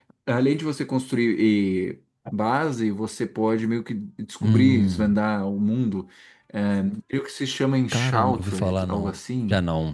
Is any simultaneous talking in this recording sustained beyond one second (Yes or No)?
Yes